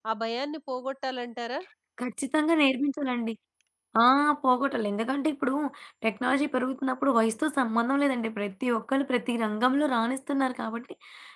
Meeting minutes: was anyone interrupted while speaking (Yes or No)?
No